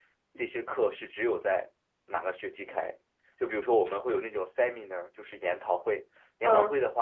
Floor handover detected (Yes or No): No